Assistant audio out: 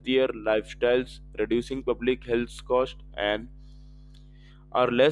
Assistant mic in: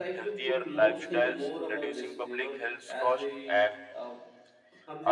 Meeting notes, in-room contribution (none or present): present